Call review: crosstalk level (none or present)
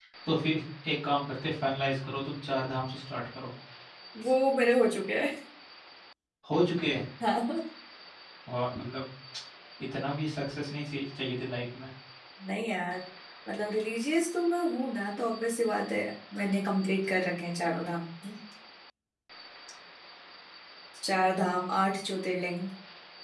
none